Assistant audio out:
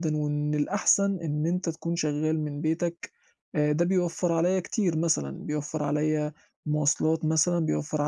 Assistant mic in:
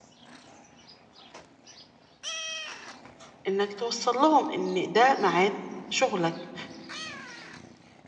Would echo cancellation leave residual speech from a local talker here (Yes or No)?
Yes